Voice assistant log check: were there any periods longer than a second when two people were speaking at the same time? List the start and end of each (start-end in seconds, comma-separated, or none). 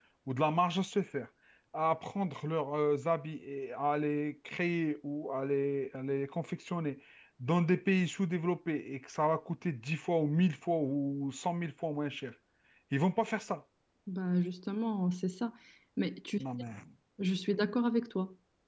none